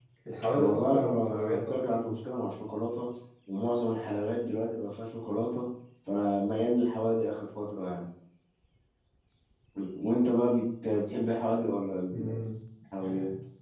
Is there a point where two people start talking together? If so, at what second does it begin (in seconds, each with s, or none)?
0.5 s